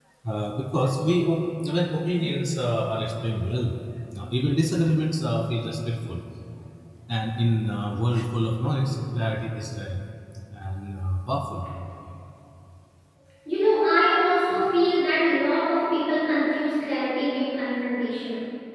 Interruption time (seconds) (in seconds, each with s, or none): none